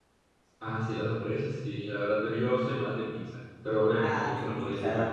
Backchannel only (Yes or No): No